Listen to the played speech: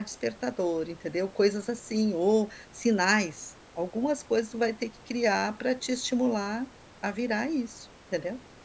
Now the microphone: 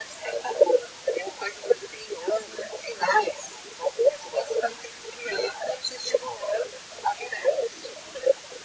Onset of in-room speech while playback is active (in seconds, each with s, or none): none